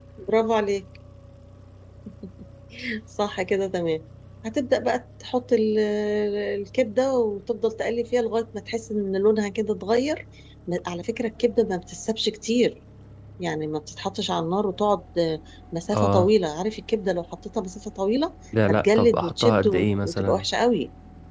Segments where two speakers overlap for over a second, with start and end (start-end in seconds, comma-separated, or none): 18.7-20.4